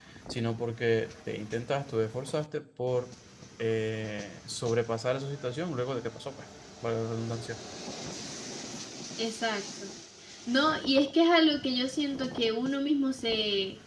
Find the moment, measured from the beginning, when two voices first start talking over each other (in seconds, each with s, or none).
none